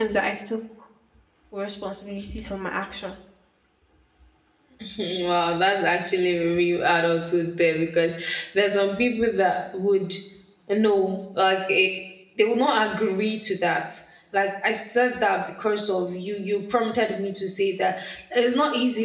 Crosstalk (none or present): none